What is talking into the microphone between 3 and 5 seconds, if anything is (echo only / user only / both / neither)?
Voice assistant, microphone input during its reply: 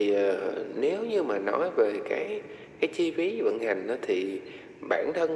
echo only